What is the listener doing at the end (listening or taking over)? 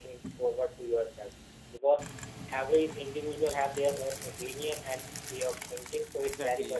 taking over